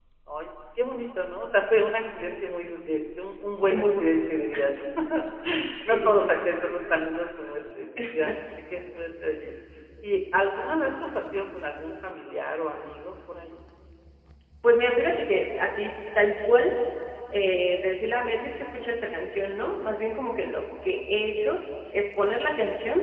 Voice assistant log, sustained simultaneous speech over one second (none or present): none